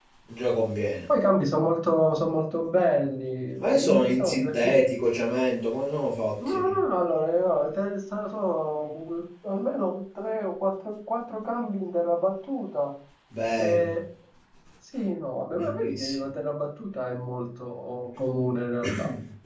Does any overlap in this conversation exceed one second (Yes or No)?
Yes